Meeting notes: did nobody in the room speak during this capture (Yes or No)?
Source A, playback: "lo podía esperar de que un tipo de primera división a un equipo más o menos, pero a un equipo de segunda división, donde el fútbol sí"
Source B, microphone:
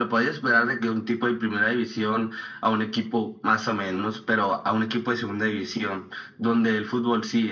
Yes